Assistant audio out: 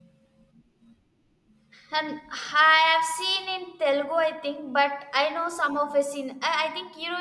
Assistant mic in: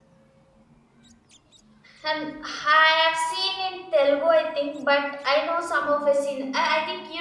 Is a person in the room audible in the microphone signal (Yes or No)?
No